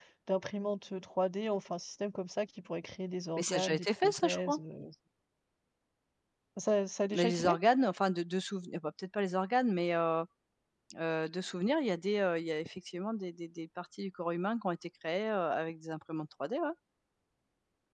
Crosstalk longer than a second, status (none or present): present